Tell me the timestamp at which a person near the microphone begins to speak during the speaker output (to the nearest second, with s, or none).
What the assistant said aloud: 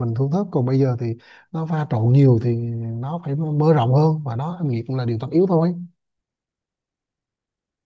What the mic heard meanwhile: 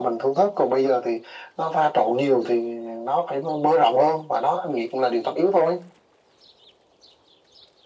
none